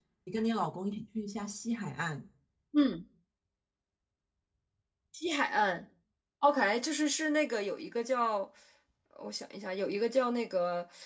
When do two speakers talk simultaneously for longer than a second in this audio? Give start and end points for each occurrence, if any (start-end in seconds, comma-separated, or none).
none